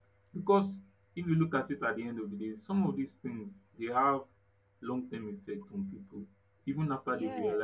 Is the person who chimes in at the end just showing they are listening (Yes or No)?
Yes